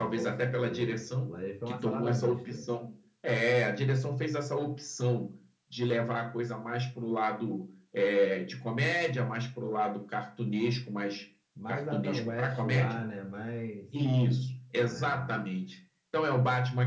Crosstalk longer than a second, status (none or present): present